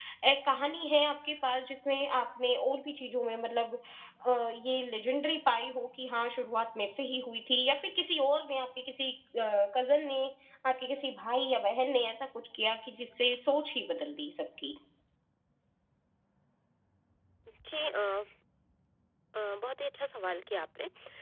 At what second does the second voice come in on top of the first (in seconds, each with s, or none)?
none